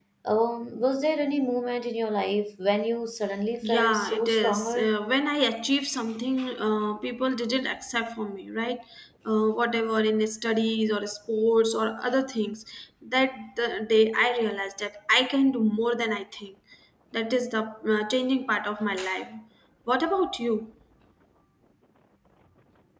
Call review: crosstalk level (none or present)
present